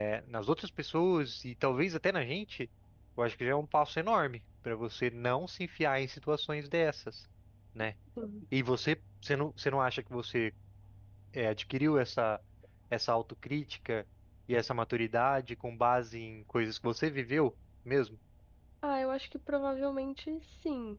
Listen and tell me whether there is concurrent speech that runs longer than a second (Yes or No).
No